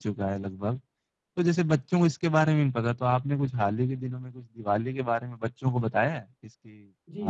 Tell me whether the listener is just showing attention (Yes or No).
No